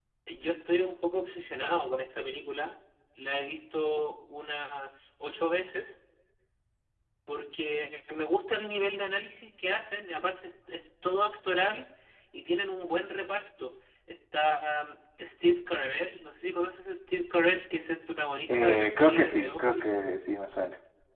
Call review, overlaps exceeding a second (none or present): present